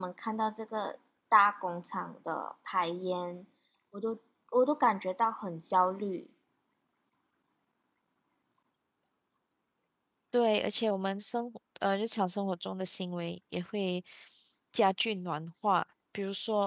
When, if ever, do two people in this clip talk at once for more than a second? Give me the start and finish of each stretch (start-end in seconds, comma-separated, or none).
none